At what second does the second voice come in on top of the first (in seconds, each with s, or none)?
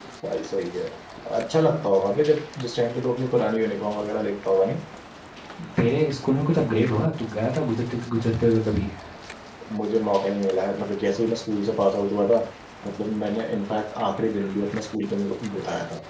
none